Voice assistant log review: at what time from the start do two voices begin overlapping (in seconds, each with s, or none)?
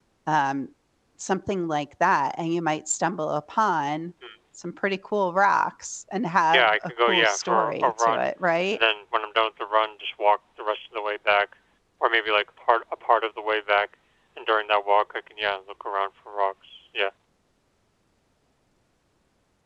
6.5 s